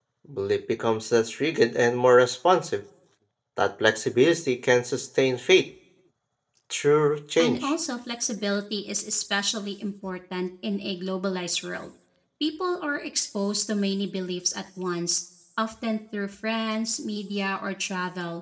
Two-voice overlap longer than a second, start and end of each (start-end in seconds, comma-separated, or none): none